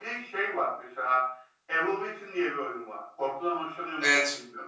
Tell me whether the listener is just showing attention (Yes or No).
No